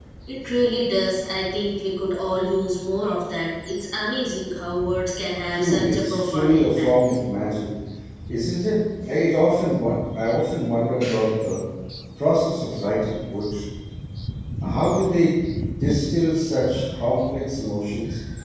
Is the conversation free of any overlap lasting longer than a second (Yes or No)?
No